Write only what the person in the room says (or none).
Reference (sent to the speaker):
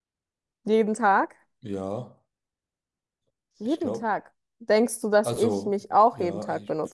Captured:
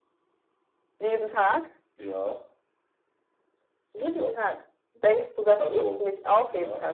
none